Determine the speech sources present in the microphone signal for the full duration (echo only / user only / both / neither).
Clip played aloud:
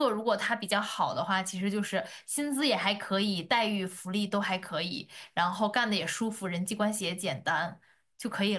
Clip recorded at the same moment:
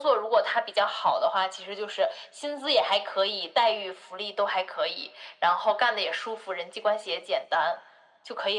echo only